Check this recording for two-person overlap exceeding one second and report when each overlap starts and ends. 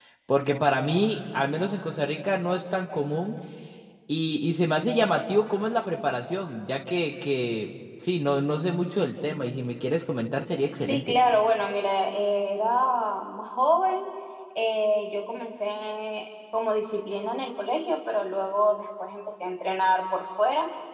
none

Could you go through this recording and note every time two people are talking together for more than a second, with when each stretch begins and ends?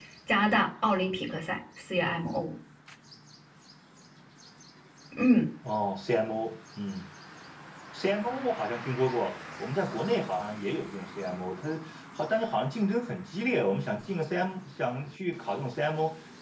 none

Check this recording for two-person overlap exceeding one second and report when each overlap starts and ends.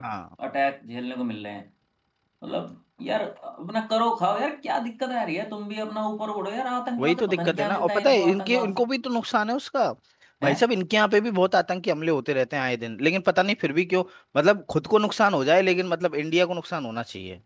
7.0-8.8

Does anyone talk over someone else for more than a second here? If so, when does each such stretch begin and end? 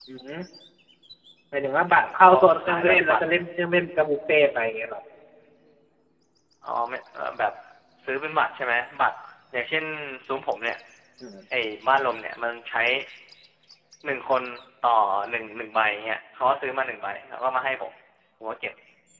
1.9-3.2

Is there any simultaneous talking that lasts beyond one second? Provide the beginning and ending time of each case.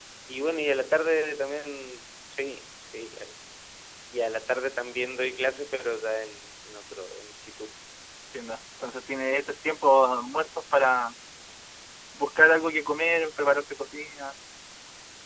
none

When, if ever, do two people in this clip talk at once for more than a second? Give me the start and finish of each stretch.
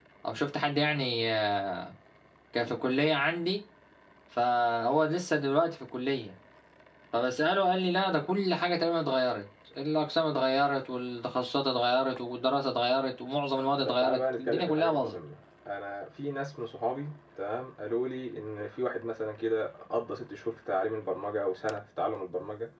13.8-15.2

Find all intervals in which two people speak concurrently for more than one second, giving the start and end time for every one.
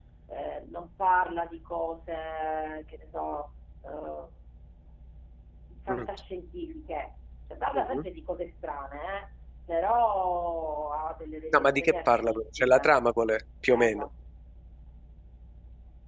11.5-12.9

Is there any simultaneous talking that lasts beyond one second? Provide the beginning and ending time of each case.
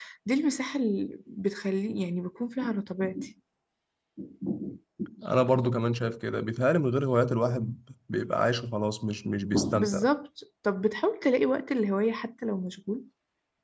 none

